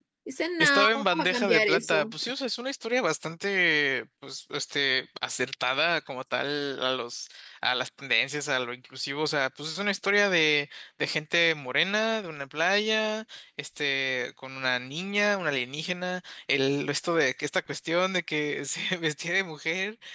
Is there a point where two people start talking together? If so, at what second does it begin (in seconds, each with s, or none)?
0.6 s